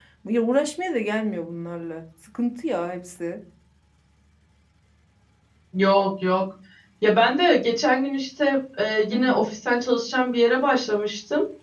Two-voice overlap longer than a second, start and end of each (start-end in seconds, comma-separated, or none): none